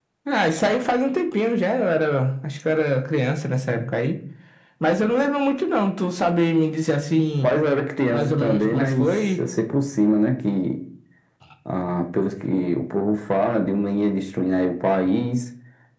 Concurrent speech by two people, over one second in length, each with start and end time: 8.1-9.4

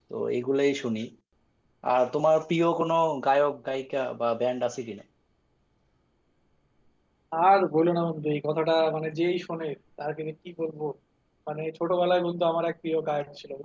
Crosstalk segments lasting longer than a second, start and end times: none

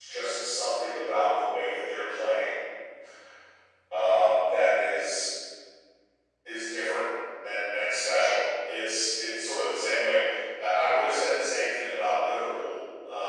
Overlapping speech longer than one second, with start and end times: none

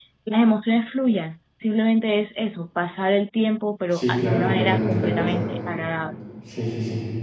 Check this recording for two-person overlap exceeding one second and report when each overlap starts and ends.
3.9-5.4

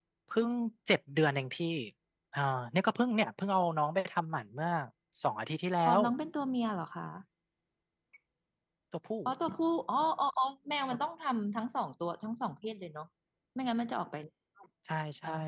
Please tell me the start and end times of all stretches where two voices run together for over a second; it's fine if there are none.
none

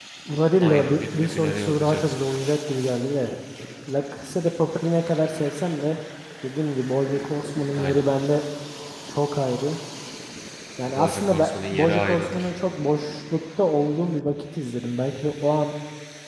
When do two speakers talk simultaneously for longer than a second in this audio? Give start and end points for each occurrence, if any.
0.6-2.2, 10.9-12.5

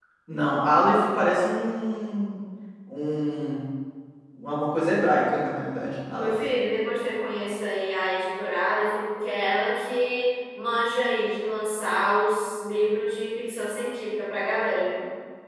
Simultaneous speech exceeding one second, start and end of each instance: none

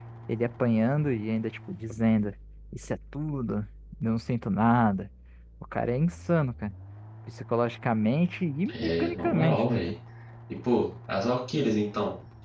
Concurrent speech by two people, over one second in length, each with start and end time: 8.7-9.9

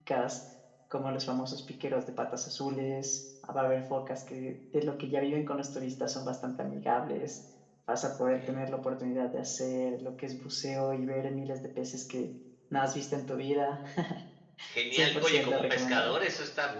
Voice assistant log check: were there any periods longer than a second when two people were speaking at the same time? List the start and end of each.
14.9-16.2

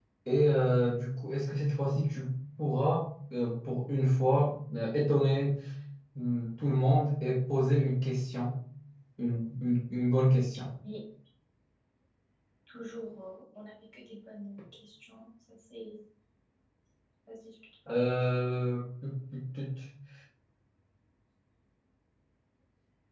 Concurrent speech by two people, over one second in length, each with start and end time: none

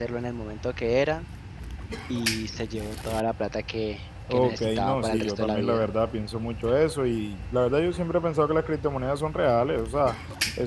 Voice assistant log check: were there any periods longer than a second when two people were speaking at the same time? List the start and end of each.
4.3-5.9

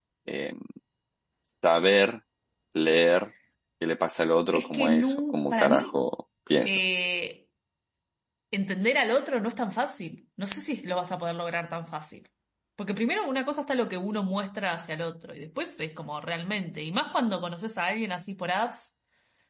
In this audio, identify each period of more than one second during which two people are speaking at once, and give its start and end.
4.6-5.8

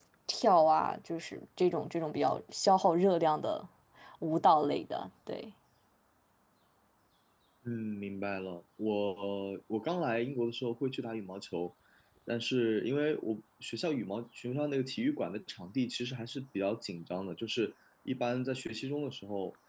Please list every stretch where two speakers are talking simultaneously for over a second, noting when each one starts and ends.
none

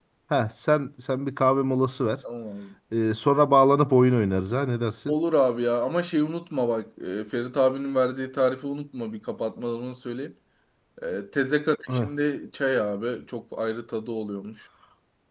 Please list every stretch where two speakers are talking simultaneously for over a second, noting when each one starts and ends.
none

